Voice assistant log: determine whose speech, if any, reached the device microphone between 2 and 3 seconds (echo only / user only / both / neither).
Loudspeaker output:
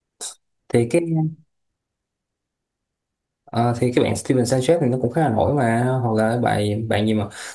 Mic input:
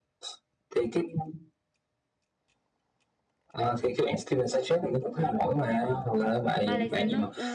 neither